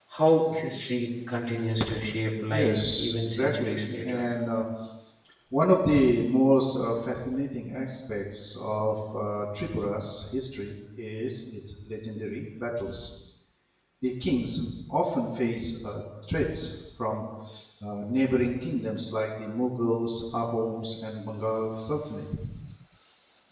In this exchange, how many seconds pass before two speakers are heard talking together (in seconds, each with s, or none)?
2.5 s